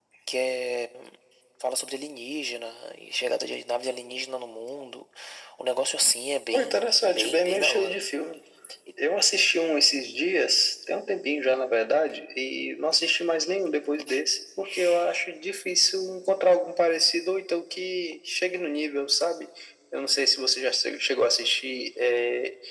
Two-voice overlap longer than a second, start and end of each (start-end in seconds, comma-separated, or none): 6.5-8.0